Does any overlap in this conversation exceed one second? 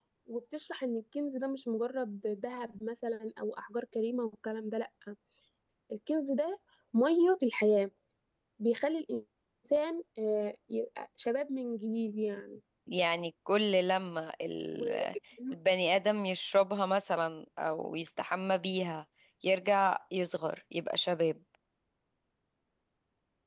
No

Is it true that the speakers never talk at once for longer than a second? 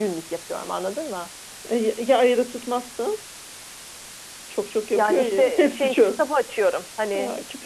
No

